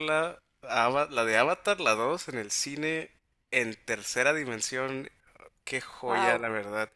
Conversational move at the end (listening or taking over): listening